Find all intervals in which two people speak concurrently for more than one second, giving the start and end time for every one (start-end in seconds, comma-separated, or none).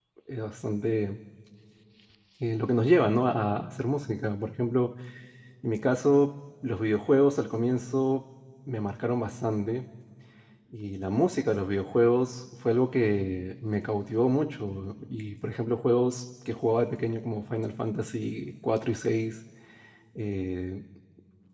none